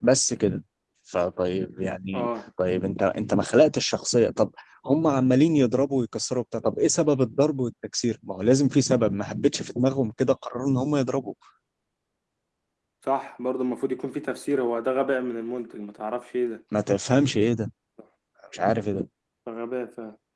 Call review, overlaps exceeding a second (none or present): none